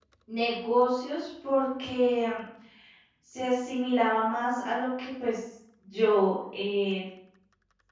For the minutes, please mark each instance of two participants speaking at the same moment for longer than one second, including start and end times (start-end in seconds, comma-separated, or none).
none